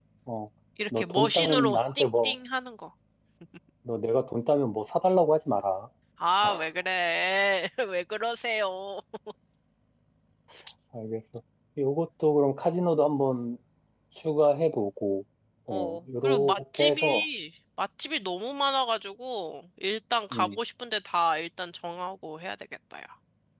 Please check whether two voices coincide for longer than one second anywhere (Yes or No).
Yes